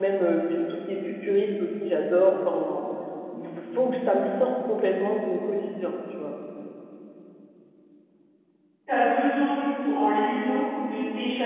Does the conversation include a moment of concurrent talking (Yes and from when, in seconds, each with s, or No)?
No